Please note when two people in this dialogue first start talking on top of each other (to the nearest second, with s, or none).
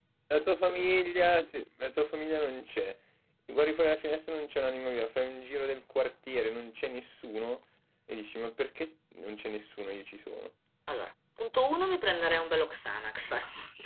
none